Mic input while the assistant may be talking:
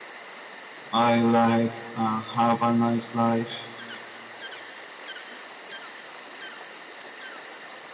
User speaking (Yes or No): Yes